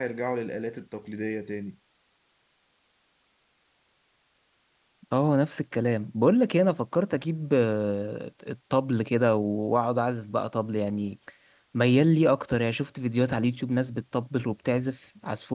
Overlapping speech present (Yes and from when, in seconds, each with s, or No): No